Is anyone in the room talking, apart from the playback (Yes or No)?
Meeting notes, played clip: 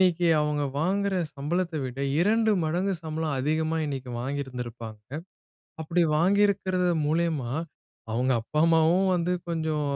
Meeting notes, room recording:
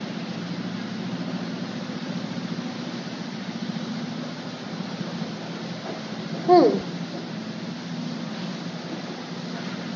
Yes